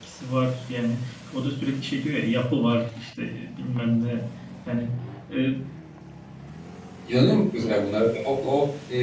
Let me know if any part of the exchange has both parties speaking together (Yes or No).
No